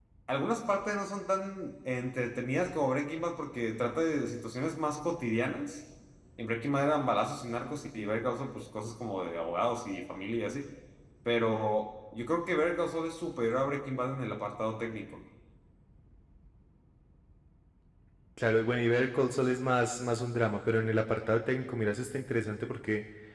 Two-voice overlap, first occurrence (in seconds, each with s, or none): none